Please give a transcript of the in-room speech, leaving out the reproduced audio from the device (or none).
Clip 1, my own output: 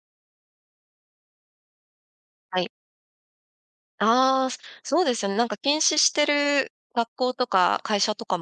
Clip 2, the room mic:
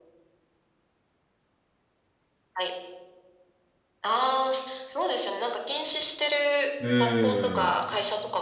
うーん。